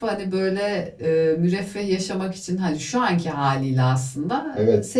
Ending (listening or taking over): listening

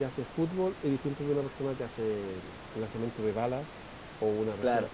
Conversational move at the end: taking over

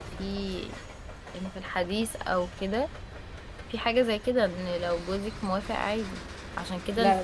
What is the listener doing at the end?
listening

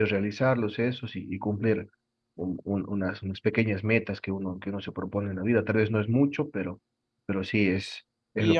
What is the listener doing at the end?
taking over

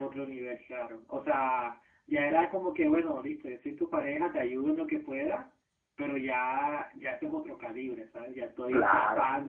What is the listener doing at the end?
listening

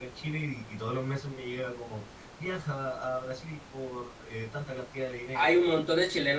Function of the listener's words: taking over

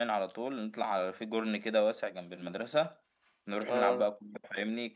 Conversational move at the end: listening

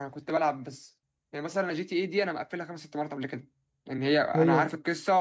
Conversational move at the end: listening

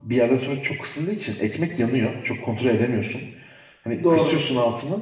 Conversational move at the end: listening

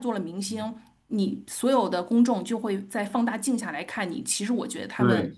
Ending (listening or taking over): taking over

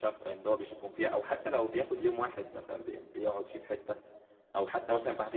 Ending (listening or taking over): listening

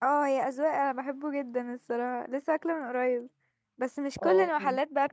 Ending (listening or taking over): listening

